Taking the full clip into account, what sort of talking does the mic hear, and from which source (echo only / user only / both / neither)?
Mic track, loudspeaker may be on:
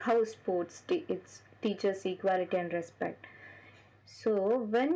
echo only